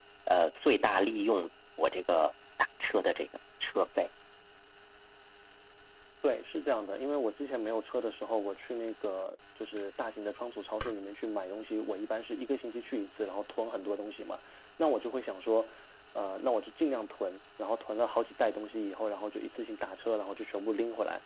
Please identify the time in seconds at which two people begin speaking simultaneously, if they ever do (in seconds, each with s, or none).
none